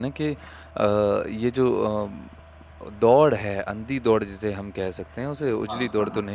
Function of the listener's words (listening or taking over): listening